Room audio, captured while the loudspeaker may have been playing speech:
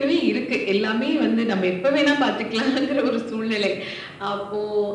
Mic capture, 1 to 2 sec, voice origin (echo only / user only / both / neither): echo only